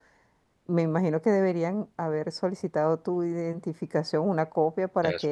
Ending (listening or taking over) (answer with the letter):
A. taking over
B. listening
B